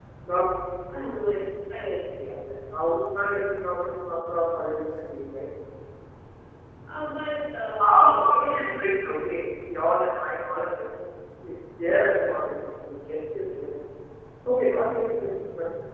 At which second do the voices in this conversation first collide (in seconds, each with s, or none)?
7.8 s